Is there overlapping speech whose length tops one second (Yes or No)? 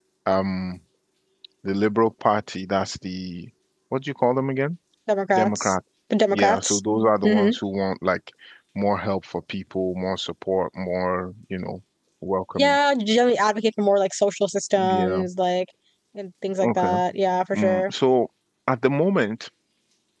No